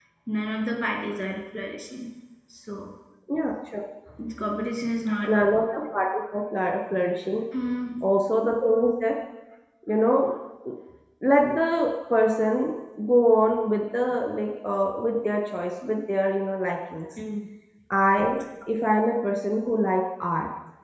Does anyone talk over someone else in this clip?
No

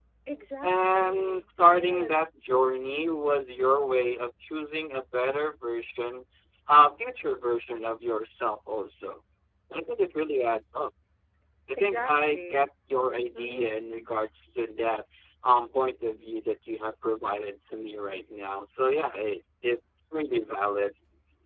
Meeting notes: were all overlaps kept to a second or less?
No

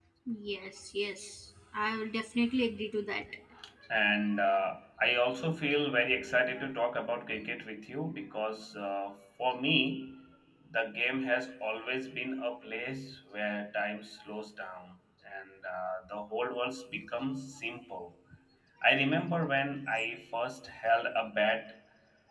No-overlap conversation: Yes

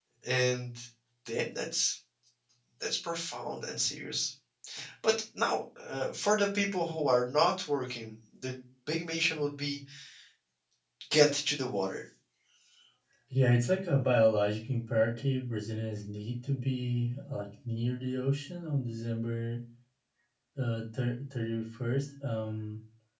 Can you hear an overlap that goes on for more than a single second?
No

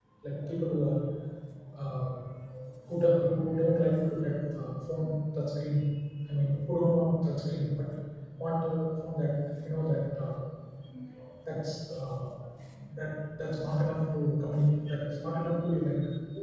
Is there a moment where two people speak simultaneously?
No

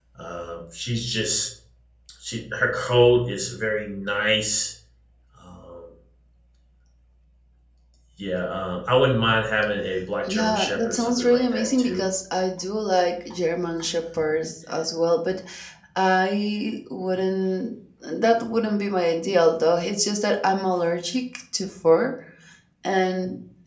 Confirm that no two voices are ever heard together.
No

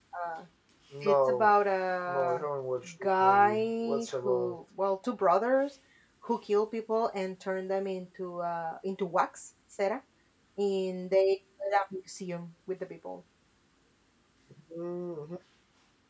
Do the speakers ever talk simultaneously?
Yes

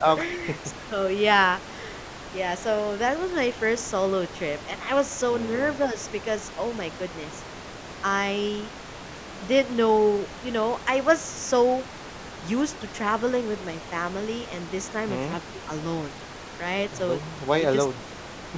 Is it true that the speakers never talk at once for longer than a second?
Yes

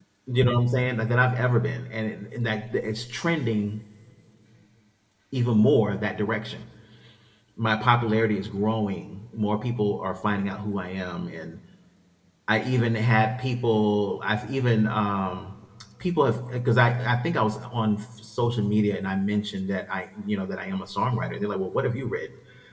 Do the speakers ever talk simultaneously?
No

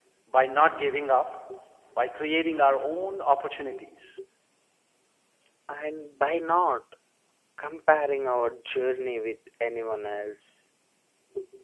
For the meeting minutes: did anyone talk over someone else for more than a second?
No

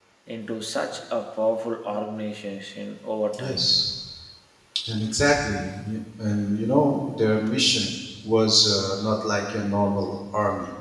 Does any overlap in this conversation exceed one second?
No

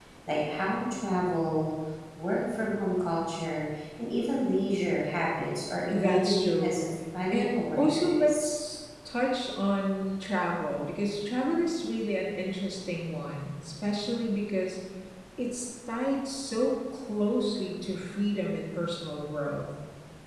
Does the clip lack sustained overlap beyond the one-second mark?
No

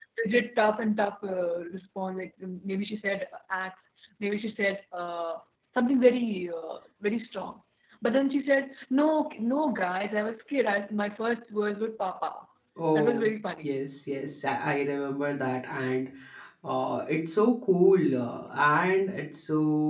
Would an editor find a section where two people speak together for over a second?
No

